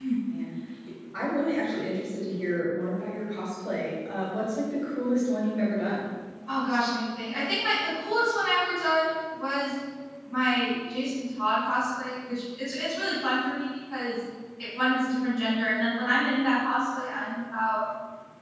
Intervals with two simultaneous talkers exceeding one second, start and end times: none

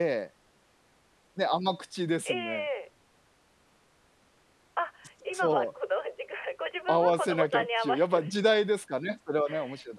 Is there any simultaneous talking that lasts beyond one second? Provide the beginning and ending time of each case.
6.9-8.5

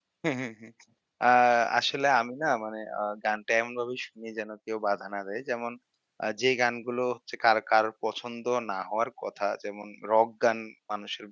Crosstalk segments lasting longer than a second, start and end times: none

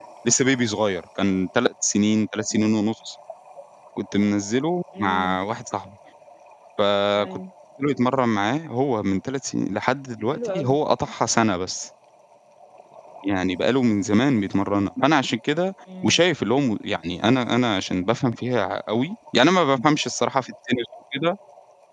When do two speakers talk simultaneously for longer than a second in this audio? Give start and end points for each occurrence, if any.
none

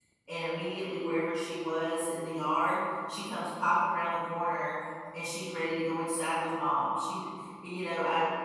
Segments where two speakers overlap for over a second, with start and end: none

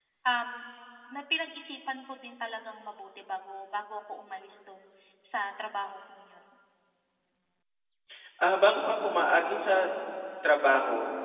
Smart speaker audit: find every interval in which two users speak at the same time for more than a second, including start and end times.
none

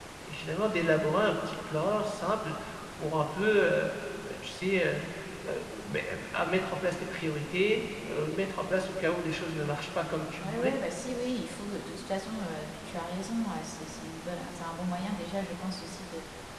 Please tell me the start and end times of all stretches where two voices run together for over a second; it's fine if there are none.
none

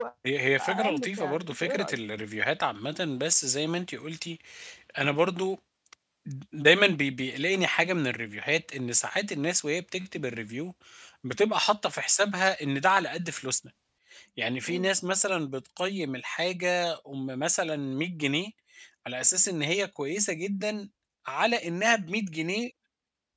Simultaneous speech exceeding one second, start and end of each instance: 0.6-2.0

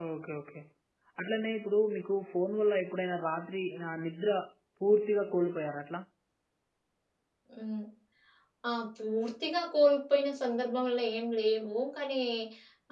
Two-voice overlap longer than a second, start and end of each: none

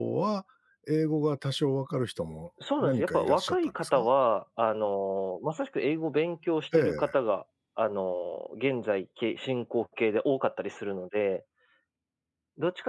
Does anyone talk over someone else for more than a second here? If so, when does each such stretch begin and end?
2.8-4.1

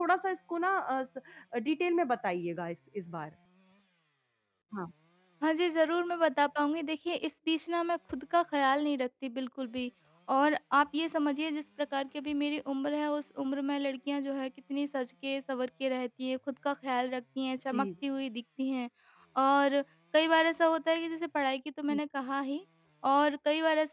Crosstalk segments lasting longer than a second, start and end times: none

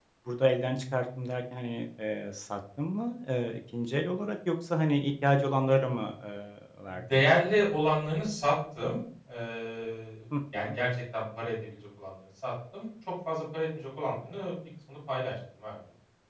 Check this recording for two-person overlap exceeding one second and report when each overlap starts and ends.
none

